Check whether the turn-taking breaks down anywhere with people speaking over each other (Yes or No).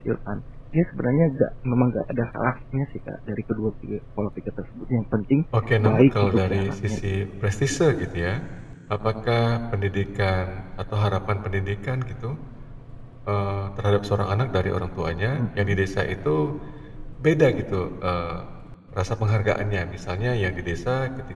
Yes